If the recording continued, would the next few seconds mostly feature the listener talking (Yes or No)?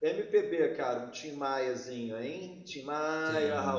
Yes